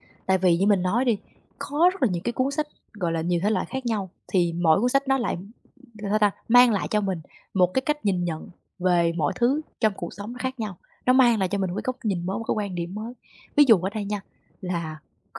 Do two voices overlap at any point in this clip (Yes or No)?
No